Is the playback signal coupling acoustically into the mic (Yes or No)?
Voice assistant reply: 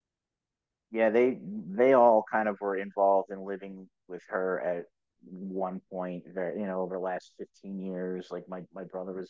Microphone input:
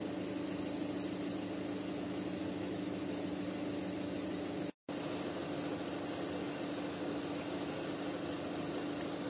No